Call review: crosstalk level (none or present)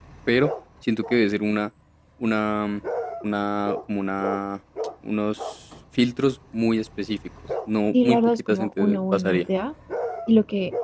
present